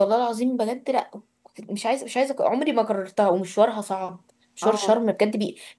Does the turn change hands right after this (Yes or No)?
No